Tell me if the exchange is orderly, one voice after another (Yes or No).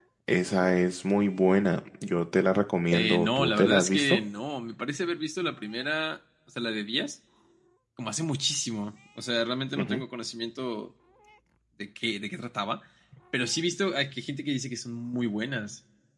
No